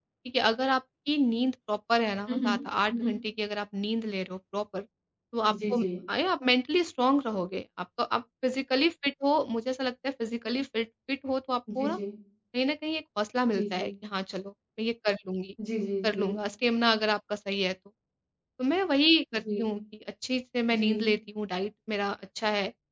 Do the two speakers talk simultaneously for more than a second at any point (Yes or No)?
No